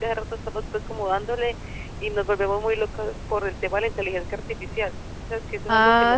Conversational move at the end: taking over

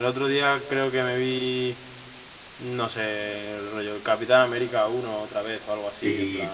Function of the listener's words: taking over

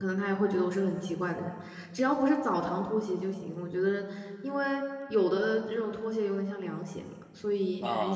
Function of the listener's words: taking over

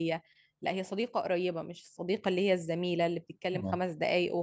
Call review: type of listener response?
listening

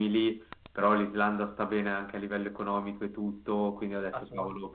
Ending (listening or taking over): listening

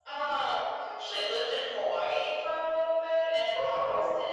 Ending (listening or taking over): listening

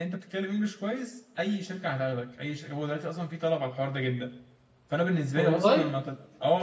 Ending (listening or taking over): listening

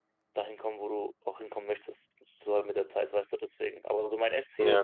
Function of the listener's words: listening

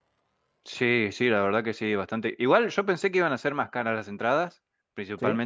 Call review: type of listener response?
listening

